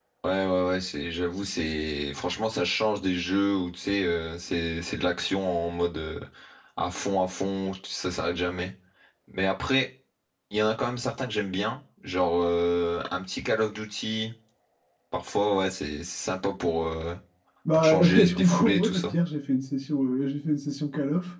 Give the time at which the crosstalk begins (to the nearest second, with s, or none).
18 s